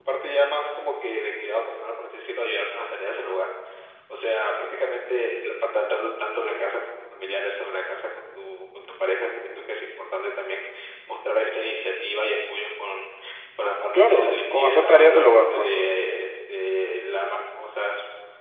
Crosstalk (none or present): present